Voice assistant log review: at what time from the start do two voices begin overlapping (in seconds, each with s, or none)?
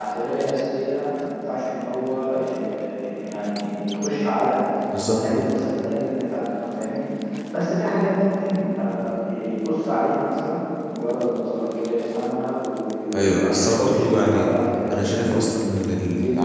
13.1 s